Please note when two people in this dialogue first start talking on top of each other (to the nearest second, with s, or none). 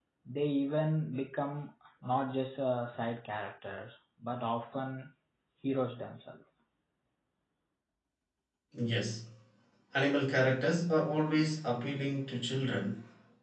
none